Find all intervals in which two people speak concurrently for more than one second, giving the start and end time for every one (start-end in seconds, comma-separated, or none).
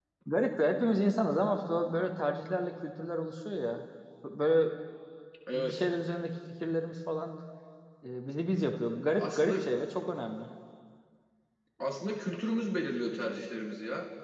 none